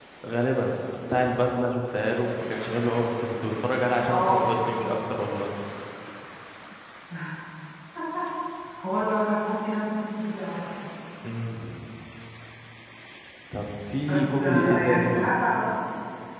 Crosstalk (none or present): present